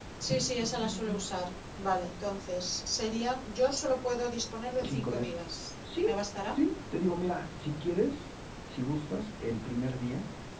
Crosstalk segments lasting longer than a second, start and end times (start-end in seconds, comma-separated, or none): none